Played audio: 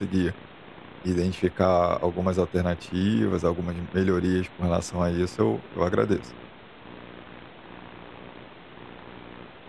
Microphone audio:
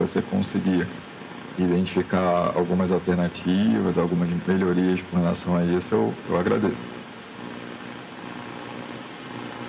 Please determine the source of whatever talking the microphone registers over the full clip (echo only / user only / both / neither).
echo only